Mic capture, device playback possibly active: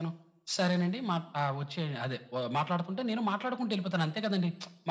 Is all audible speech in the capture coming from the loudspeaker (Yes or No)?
Yes